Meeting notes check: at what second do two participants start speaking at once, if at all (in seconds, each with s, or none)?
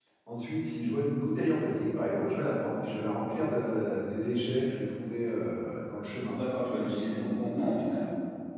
none